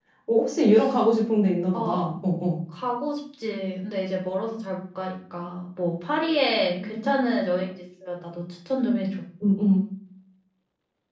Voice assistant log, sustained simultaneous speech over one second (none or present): none